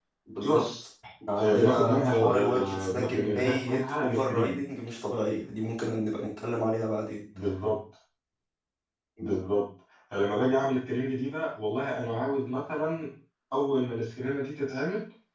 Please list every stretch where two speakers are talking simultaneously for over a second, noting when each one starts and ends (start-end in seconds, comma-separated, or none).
1.4-4.6